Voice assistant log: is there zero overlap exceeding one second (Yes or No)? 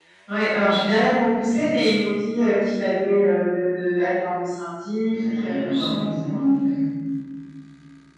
No